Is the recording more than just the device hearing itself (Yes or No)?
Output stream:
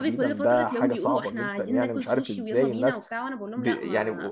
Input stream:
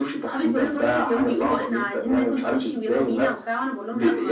No